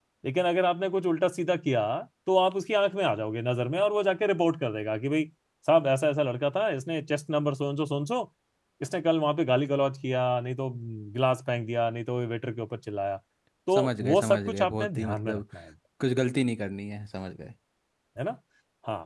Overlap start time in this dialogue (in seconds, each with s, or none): 13.7 s